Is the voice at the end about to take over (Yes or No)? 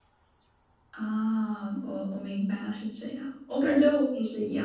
No